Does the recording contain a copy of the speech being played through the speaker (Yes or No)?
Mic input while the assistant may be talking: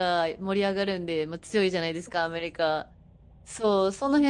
No